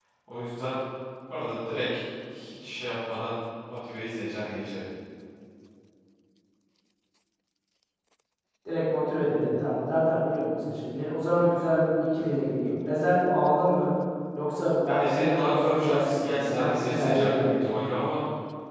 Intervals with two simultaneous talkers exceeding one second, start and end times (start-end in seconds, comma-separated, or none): 14.9-17.8